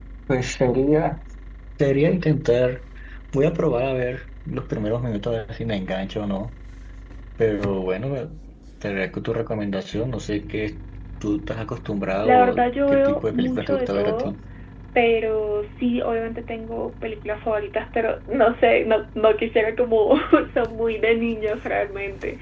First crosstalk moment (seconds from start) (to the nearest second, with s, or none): 12 s